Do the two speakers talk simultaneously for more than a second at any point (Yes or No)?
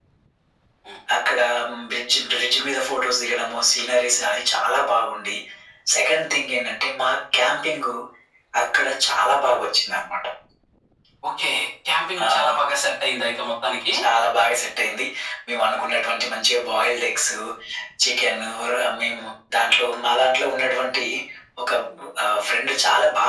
No